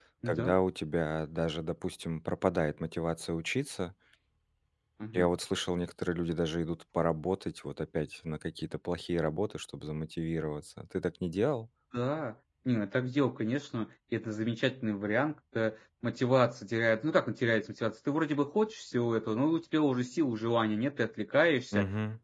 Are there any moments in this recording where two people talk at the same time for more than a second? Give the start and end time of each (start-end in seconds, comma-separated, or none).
none